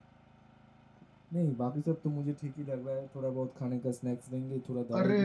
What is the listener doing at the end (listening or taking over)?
taking over